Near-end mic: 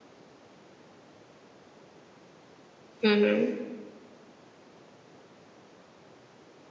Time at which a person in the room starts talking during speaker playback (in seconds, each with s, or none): 3.0 s